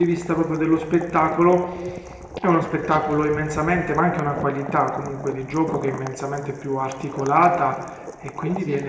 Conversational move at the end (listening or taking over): listening